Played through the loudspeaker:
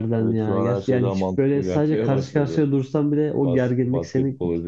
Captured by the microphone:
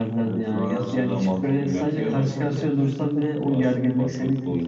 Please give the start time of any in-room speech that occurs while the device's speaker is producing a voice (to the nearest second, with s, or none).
none